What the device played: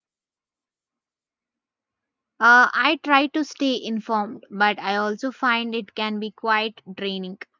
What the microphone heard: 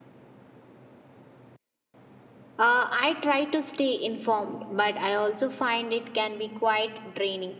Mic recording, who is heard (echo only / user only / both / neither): echo only